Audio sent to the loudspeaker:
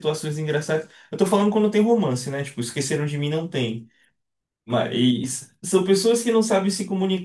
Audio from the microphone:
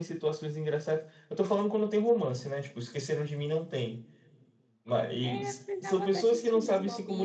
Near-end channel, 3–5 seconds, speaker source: echo only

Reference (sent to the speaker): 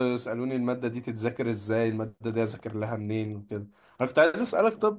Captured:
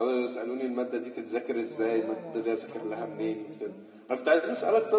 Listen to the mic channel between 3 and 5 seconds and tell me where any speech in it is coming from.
both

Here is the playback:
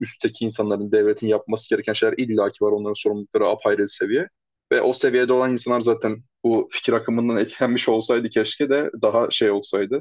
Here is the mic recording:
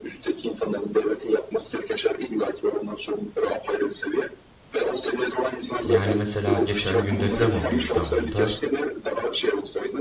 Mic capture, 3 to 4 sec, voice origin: echo only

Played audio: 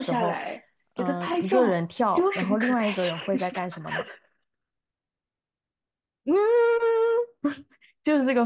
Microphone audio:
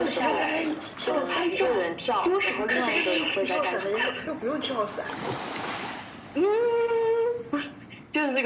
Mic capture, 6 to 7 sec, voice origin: echo only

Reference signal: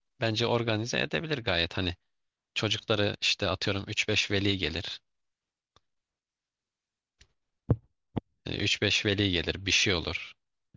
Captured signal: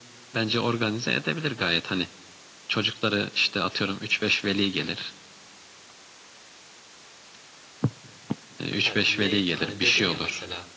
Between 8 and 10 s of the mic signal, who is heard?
both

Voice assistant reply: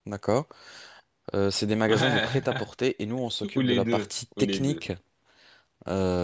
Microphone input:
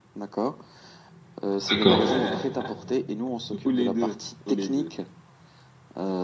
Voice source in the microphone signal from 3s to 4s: echo only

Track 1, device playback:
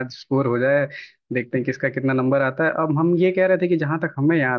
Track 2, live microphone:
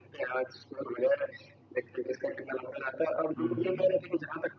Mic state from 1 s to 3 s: echo only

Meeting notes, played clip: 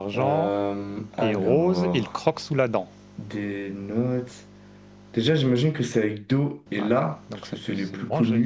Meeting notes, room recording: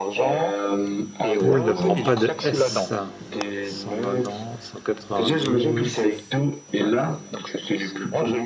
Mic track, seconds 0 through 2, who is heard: both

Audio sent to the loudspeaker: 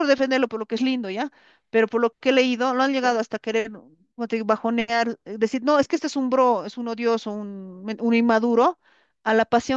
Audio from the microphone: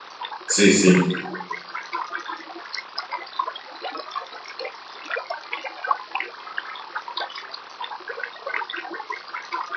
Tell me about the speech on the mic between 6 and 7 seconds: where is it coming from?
neither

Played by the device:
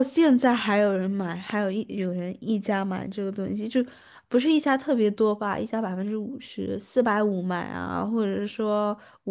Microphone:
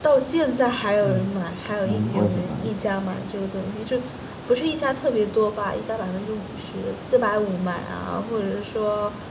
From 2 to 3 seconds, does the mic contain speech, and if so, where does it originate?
both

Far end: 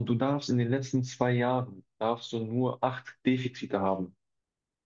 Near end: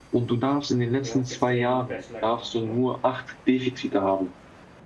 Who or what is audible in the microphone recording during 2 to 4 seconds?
both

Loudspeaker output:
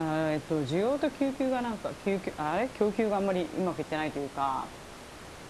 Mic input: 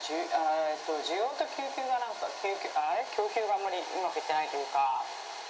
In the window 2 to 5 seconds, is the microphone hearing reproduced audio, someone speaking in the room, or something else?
echo only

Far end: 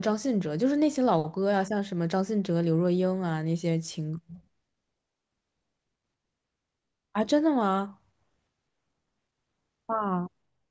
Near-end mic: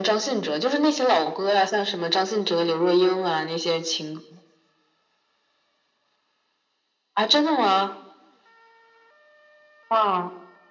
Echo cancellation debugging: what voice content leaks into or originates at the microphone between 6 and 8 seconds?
echo only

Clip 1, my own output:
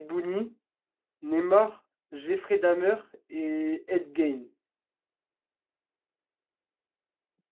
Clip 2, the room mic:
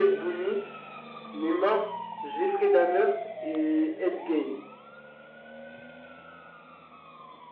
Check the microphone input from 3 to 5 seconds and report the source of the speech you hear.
echo only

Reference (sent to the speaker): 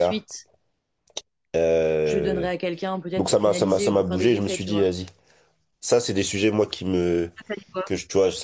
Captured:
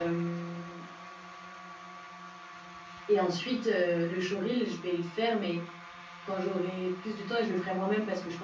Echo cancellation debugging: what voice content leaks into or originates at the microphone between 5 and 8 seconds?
user only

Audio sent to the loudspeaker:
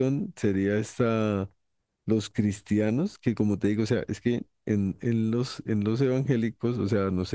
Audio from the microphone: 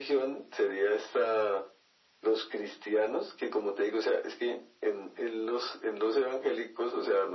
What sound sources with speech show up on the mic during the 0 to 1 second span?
echo only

